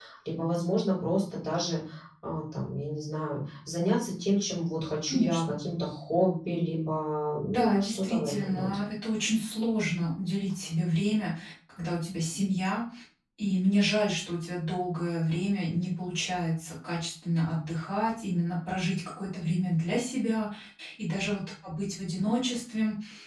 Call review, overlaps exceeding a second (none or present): present